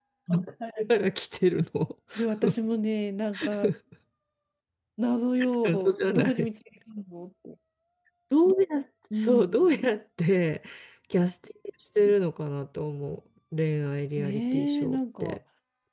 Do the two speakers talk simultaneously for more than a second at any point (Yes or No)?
Yes